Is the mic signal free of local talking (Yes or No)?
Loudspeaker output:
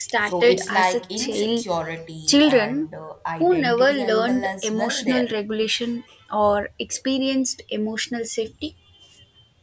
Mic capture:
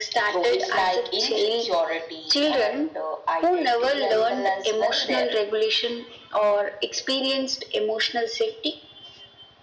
Yes